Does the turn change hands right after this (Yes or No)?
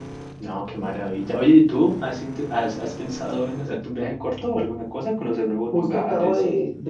Yes